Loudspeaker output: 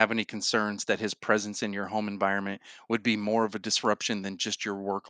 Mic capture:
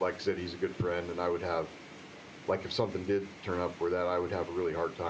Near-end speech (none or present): present